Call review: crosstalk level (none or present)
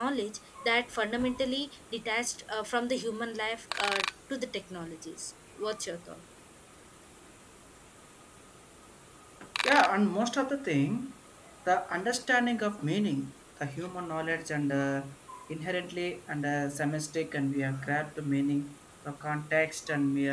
none